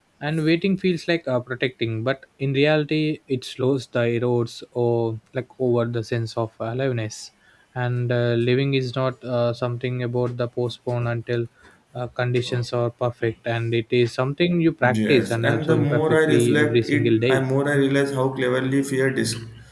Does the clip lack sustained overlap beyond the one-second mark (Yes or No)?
No